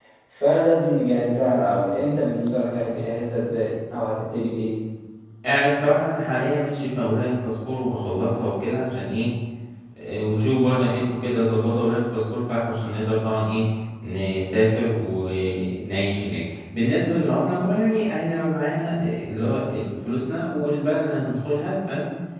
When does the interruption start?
none

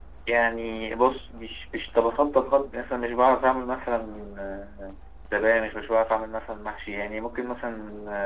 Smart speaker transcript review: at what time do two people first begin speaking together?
none

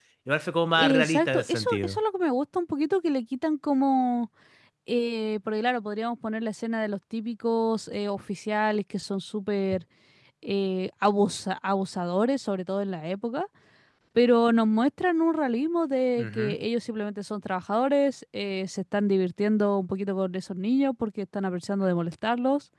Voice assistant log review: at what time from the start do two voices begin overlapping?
0.8 s

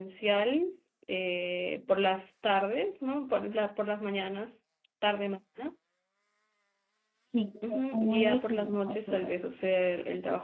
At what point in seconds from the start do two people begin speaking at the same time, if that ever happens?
7.6 s

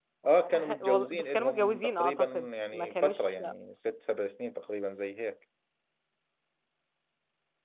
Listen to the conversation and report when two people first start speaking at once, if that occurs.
0.6 s

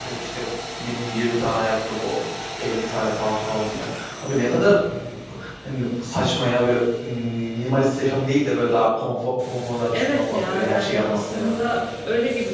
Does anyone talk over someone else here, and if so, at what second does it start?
9.9 s

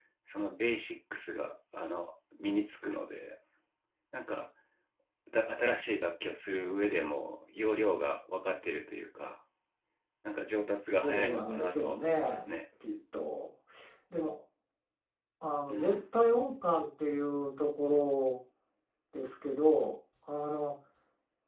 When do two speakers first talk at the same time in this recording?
11.0 s

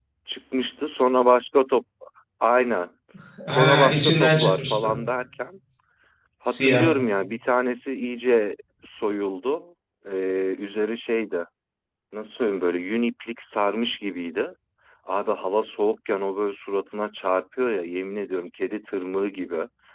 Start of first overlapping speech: 3.5 s

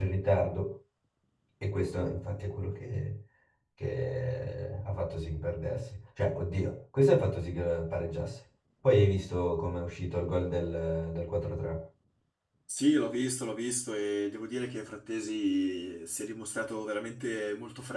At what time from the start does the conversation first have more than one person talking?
none

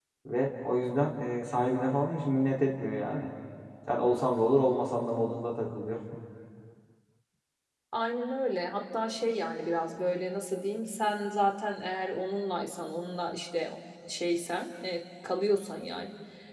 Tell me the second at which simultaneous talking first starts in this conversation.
none

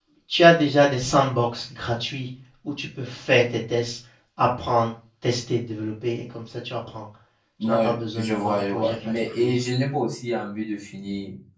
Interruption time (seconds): 7.6 s

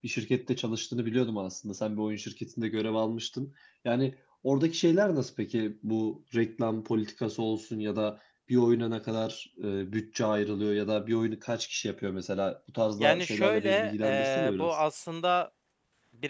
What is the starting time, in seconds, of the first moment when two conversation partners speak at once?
13.0 s

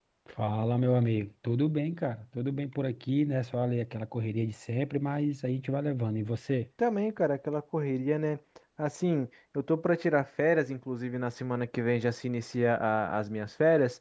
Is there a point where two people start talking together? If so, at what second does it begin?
none

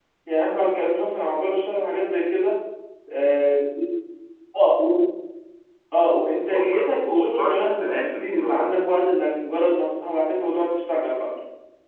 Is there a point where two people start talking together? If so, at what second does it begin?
6.3 s

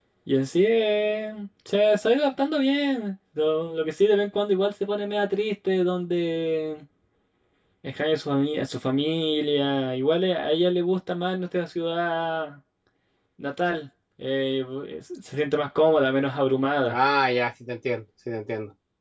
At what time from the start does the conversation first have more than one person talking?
none

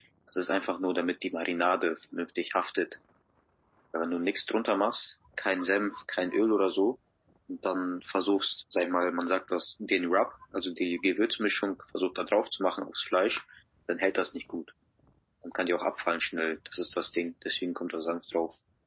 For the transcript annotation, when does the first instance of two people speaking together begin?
none

